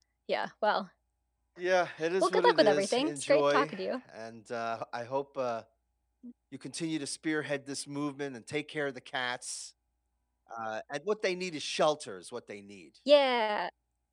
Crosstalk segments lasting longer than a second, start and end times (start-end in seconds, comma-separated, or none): 2.2-4.0